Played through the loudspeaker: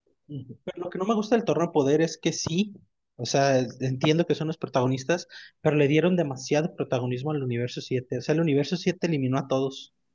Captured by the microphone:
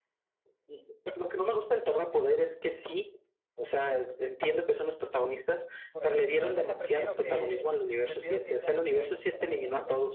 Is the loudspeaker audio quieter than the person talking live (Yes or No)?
No